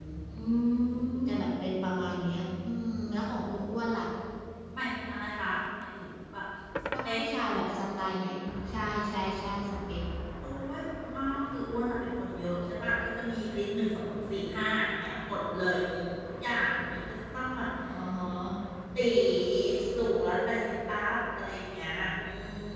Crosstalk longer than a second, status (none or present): none